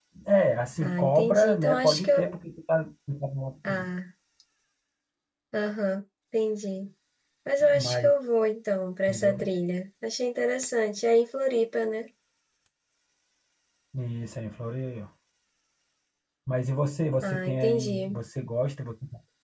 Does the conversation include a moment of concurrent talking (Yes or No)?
Yes